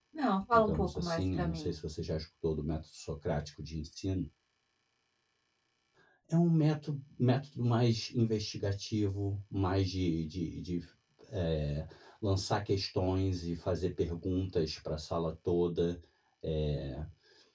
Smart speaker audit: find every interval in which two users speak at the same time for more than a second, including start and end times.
0.5-1.8

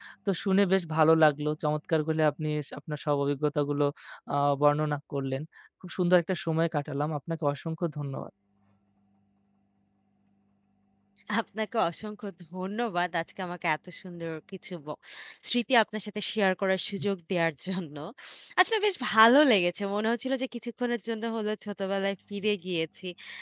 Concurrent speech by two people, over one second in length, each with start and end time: none

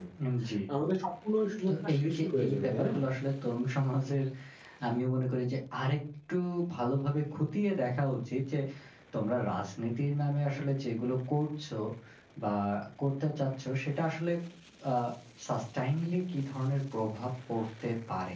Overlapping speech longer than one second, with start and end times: 1.7-2.9

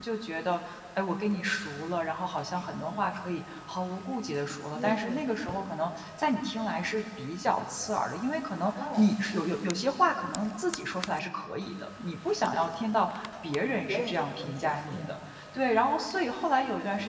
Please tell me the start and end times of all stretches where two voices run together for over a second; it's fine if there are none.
13.9-15.1

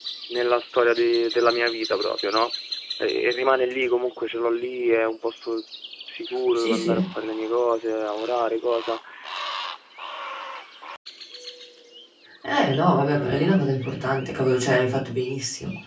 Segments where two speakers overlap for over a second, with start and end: none

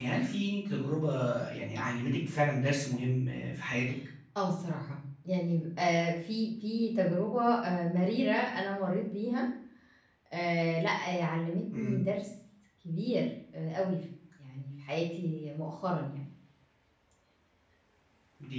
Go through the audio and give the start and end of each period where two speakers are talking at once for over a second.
none

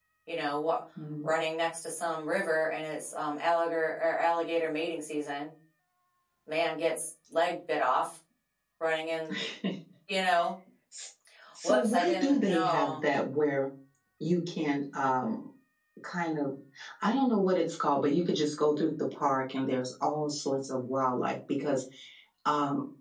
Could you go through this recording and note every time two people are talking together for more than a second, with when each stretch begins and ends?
11.6-13.0

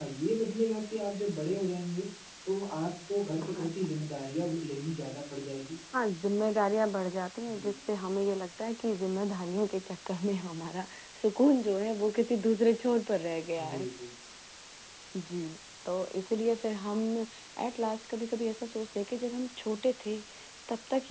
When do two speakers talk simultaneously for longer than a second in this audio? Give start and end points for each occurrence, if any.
none

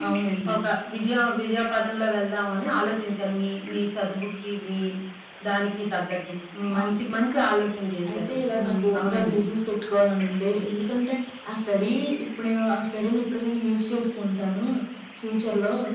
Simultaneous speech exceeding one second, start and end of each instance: 8.1-9.4

